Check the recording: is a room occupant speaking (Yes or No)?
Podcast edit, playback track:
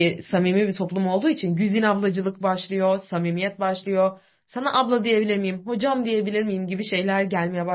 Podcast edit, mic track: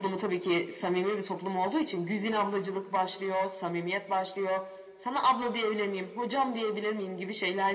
No